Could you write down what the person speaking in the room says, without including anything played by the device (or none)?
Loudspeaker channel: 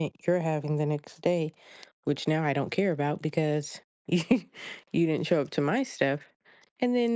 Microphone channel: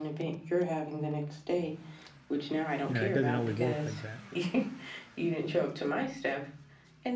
you know, it doesn't always work like that.